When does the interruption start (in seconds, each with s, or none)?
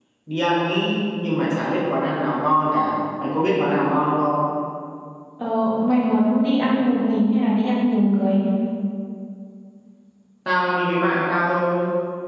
none